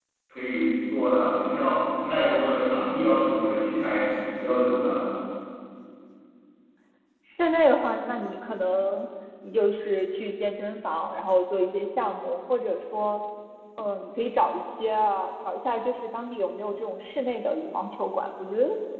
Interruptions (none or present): none